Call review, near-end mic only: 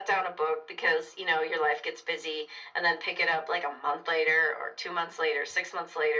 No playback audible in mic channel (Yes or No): No